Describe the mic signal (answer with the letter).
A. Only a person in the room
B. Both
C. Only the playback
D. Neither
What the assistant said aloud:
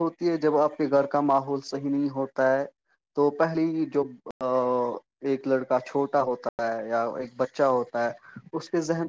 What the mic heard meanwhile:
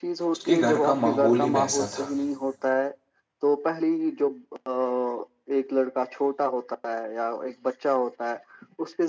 B